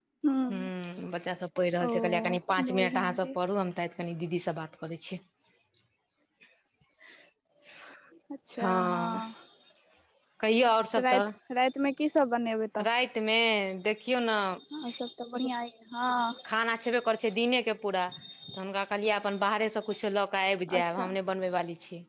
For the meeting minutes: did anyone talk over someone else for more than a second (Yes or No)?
Yes